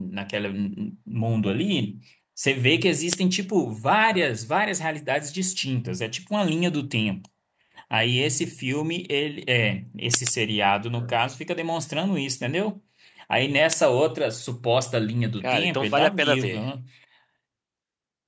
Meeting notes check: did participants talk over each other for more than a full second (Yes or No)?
Yes